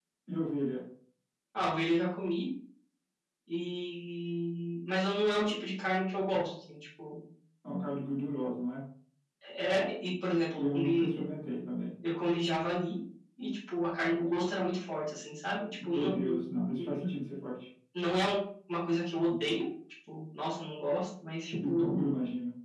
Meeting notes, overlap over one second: none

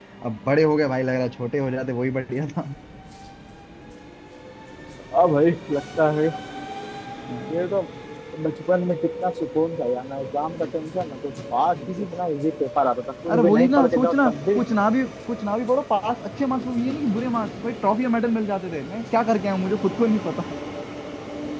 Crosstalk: present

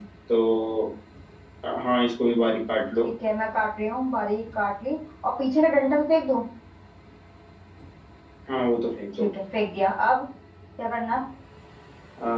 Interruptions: none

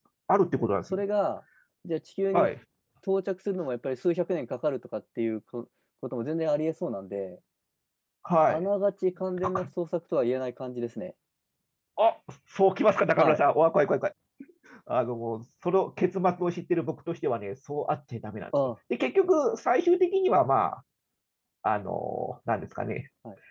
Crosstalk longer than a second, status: none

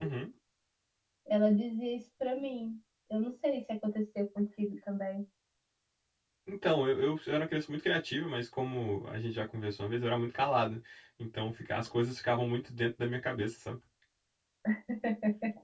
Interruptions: none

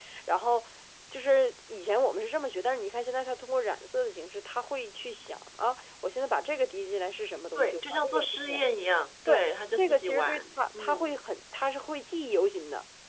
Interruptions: present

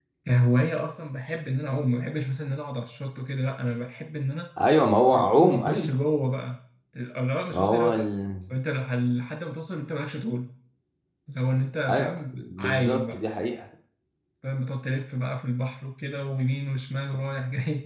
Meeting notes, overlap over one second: present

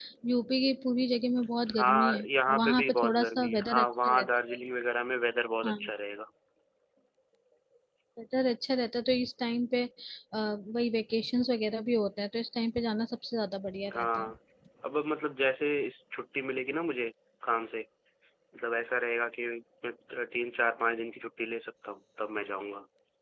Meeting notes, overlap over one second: present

